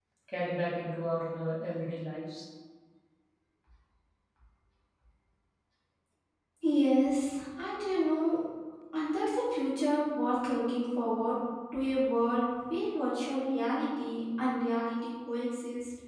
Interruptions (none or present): none